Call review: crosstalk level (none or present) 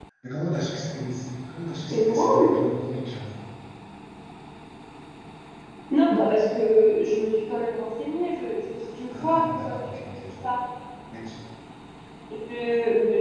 present